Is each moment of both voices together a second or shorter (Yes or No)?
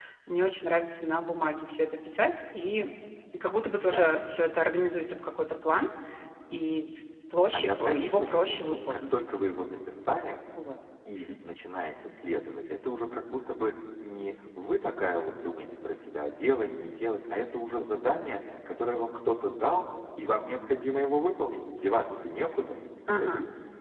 No